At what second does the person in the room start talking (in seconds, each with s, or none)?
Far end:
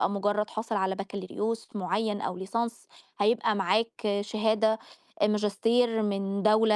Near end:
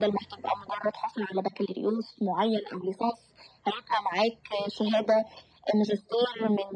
none